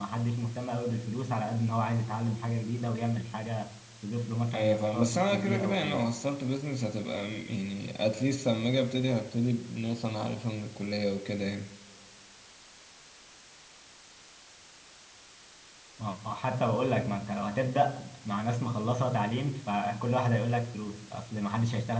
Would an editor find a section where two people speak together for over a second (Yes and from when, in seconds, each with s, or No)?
Yes, from 4.5 s